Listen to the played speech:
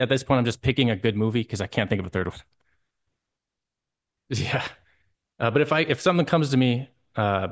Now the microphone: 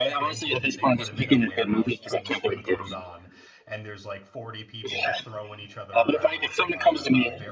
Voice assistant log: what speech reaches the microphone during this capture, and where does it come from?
both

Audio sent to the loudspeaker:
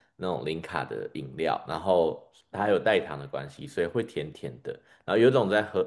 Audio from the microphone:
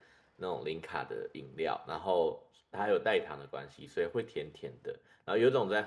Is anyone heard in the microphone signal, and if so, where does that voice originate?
echo only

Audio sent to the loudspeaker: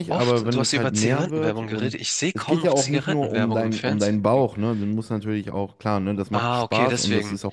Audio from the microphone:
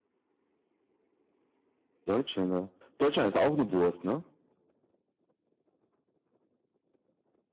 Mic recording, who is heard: user only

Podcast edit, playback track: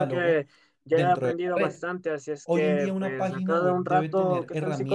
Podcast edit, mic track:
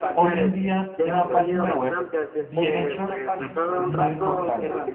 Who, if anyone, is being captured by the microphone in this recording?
both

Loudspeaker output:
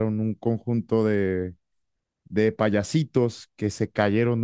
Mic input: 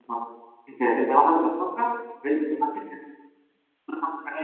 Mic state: user only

